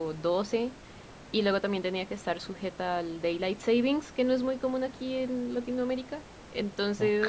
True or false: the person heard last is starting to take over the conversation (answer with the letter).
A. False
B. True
B